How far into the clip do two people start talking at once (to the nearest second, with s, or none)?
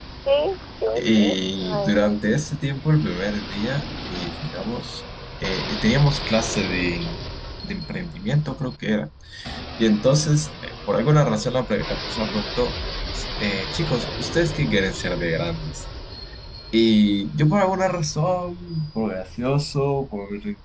1 s